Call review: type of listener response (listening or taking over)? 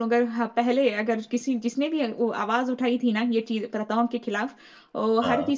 listening